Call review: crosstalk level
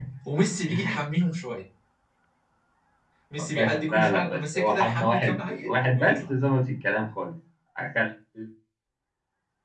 present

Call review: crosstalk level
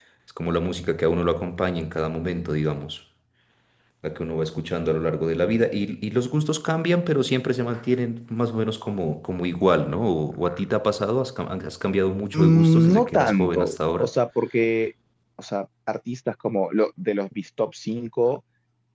present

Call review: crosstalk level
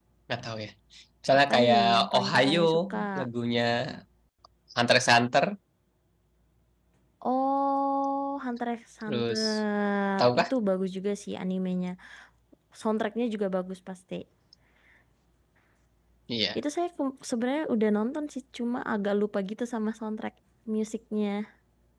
present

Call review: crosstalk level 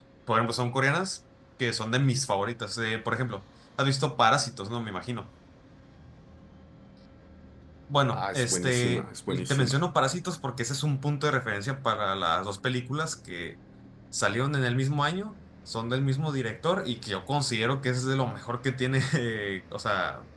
present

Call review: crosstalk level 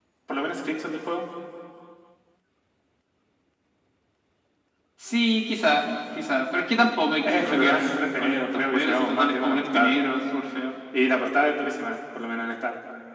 present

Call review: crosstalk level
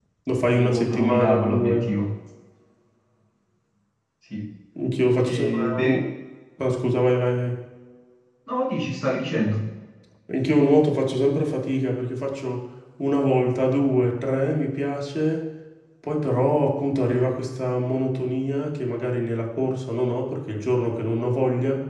present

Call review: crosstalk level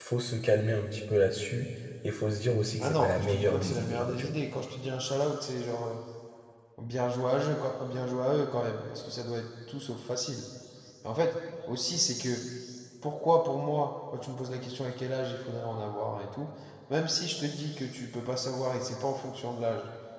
present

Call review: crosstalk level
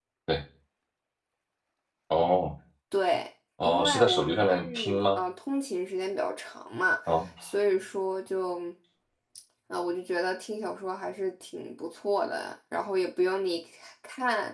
present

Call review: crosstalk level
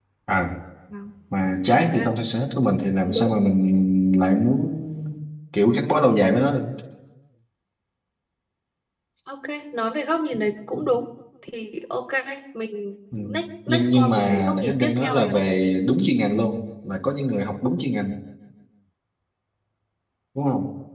present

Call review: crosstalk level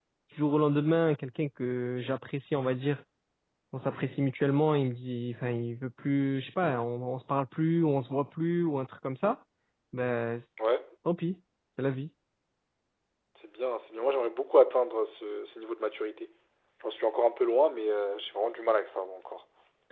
none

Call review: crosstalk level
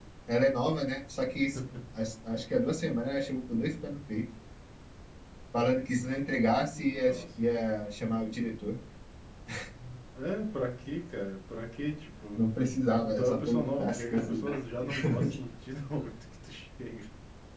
present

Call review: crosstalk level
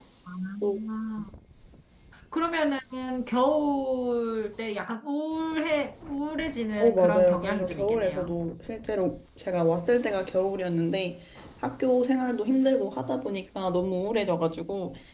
present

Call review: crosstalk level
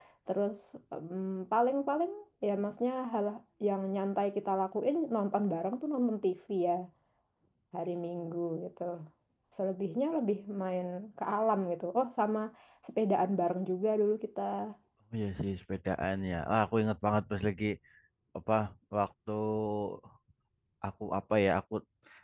none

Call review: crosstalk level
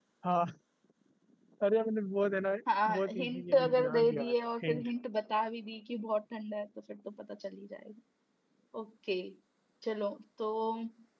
present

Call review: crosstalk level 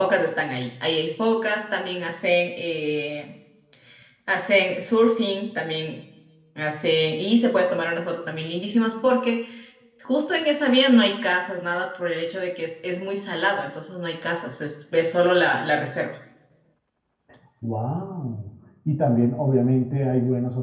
none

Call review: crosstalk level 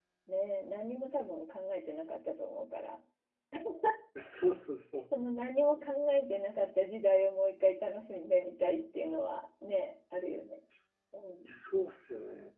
none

